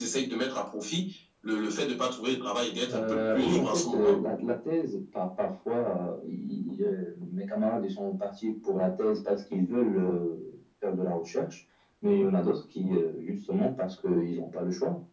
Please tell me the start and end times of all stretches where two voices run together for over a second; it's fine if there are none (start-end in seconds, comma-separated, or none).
2.9-4.2